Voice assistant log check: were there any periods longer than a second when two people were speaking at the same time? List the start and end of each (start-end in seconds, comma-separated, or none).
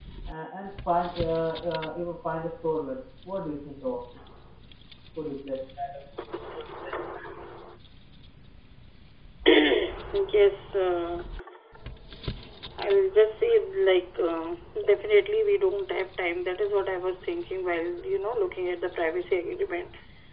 none